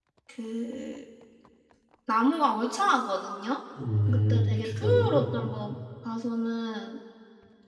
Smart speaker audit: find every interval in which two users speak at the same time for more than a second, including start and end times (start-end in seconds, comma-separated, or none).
4.1-5.3